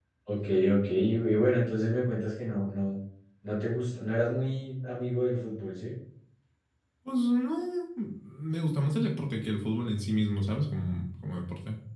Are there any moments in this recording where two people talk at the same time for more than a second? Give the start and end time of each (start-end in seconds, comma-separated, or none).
none